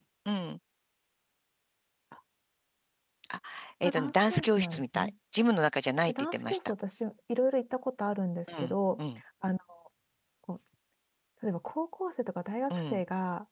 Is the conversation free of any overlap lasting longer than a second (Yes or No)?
No